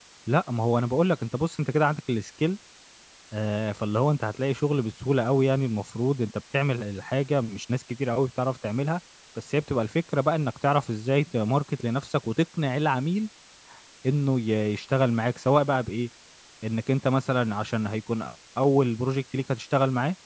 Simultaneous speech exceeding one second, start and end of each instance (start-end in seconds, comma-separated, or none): none